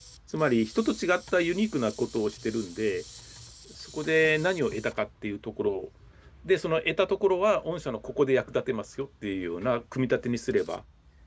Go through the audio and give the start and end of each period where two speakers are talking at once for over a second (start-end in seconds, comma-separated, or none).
none